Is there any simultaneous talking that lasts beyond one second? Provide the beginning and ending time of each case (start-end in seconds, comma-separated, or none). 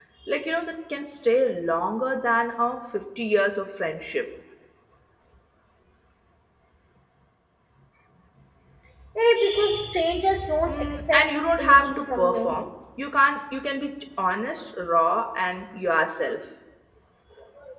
10.7-12.6